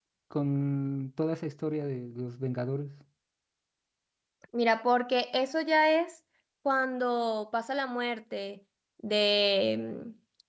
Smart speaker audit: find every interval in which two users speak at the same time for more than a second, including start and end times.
none

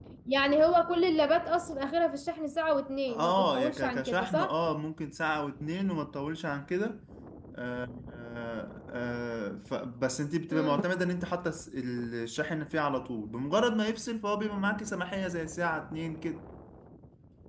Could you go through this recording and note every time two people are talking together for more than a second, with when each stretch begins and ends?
3.1-4.6

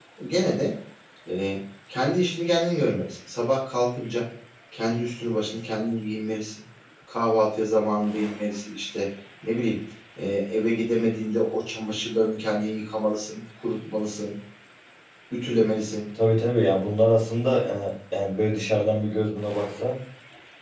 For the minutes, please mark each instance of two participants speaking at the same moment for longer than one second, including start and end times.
none

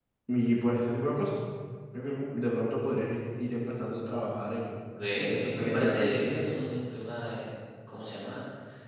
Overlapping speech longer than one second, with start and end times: 5.2-6.6

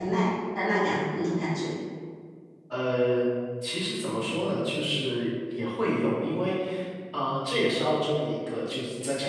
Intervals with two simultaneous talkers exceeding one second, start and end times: none

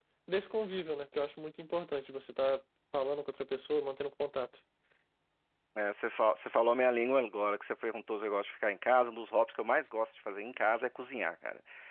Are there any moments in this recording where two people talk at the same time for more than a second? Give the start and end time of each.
none

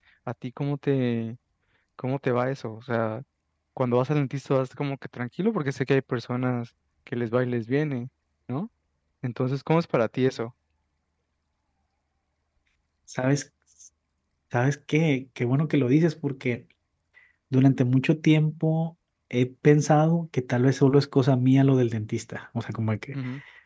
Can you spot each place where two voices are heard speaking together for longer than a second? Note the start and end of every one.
none

